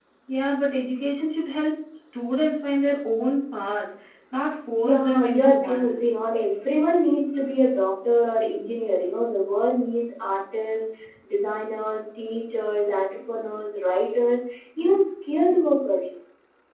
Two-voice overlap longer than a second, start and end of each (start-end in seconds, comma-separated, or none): 4.8-6.0